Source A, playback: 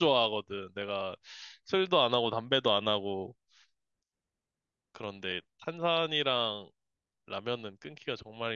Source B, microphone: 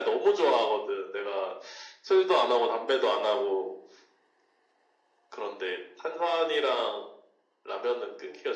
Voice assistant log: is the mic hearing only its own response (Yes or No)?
Yes